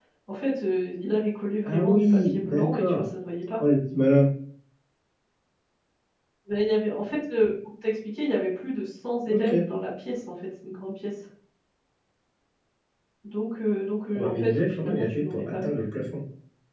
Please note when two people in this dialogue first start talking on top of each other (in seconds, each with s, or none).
1.6 s